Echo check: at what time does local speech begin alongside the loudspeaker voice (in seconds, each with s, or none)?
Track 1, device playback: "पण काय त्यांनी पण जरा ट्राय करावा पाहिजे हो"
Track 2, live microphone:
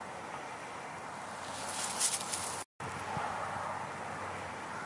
none